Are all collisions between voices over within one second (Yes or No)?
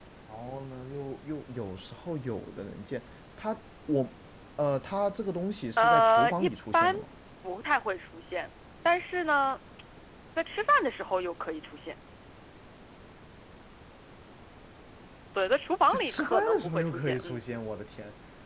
No